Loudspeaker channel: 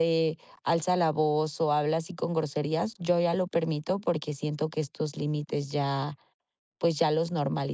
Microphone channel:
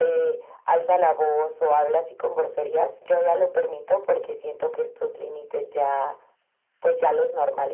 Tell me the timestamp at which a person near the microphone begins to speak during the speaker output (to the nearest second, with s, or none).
none